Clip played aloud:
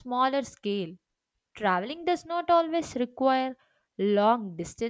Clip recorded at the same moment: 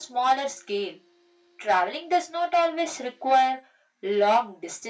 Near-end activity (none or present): none